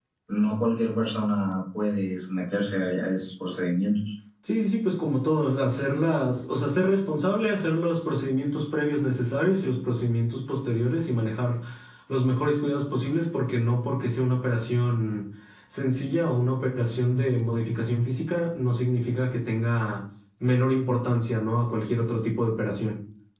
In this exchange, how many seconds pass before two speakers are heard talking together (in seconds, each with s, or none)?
none